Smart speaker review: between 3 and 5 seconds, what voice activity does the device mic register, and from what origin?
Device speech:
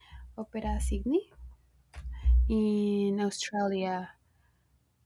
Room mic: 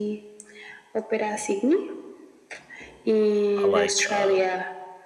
both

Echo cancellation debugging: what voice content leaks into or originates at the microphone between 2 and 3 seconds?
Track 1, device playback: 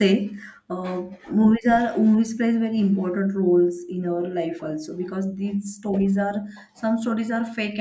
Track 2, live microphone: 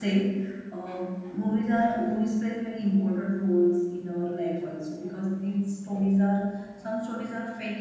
echo only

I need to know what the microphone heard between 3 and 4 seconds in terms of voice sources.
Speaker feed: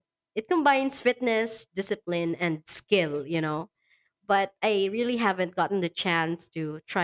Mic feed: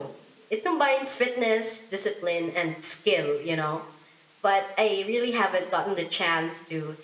echo only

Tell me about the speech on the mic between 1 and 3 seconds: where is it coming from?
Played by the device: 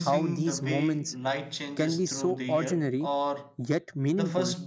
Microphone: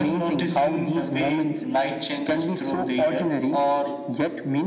echo only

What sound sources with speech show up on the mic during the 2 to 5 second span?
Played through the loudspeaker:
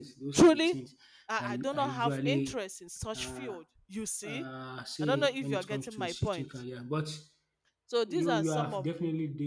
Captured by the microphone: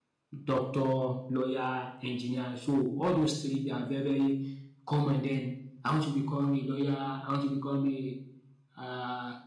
user only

